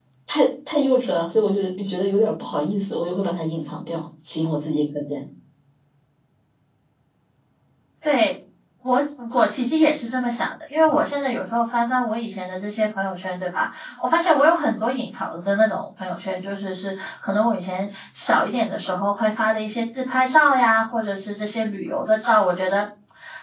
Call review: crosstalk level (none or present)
none